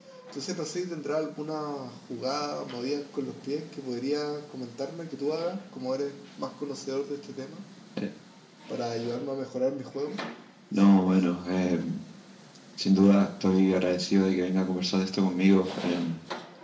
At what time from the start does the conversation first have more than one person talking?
none

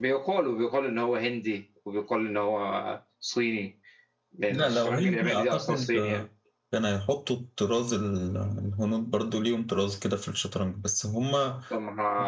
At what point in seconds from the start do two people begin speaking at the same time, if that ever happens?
5 s

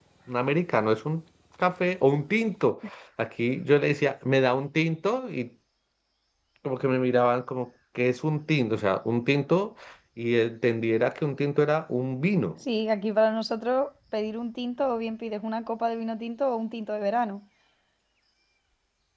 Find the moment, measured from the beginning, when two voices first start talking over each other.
none

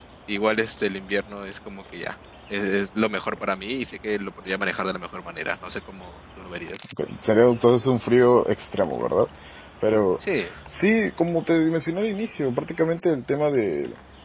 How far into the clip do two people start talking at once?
none

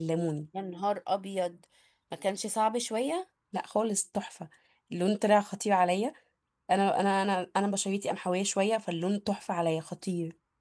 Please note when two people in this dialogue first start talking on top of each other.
none

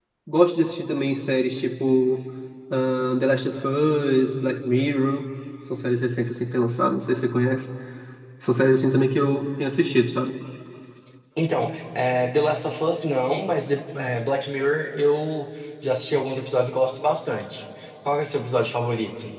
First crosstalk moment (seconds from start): none

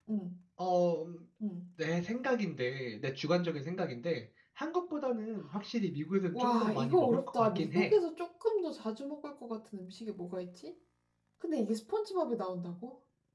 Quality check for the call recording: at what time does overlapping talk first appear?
6 s

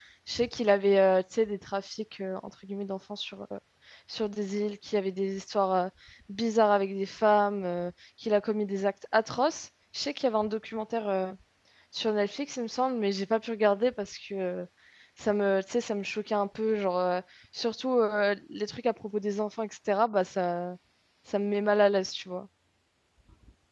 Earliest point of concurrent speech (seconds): none

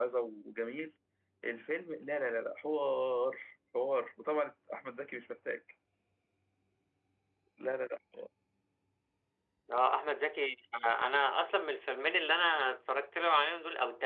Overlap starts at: none

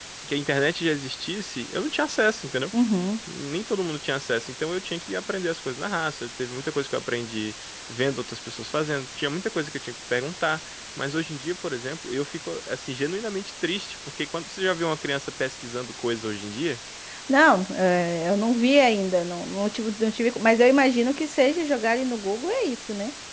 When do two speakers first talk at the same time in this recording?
none

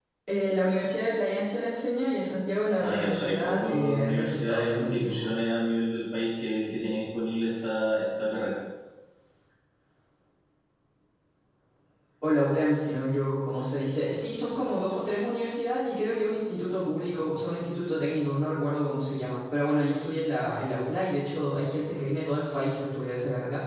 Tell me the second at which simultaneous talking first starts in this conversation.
3 s

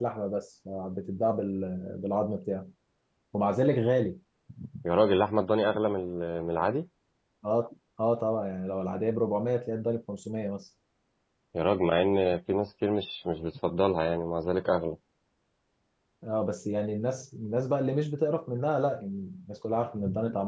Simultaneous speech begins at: none

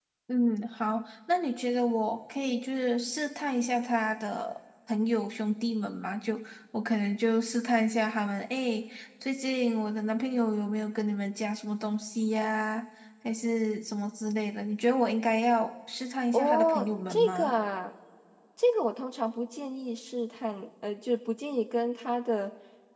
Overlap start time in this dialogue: 16 s

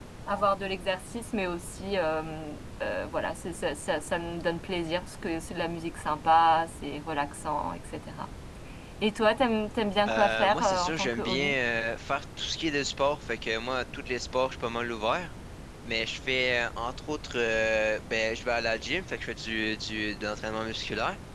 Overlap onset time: 10 s

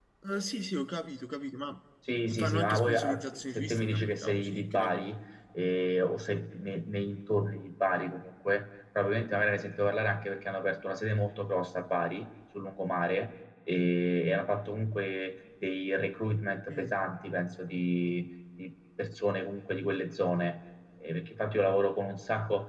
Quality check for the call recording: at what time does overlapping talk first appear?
2 s

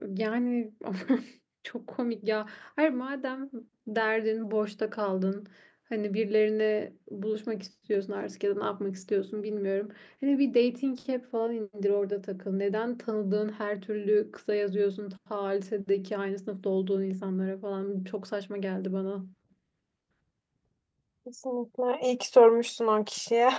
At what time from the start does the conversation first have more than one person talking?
none

